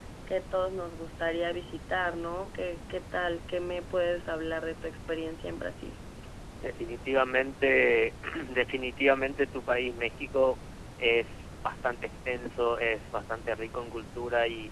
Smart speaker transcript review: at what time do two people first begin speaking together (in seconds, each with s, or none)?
none